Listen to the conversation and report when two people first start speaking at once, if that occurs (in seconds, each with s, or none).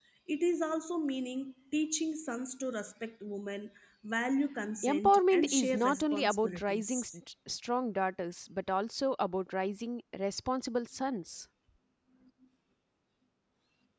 4.8 s